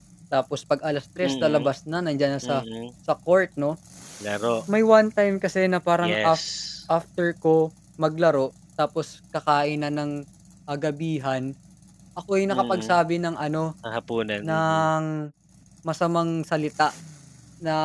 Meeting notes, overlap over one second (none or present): none